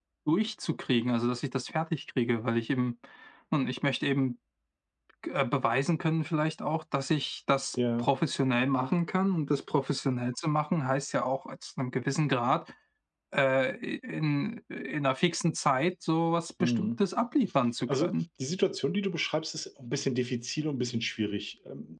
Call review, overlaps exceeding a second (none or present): none